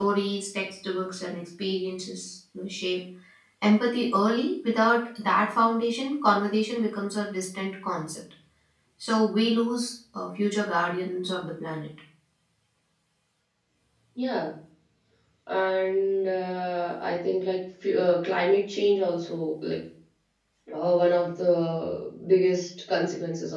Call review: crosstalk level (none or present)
none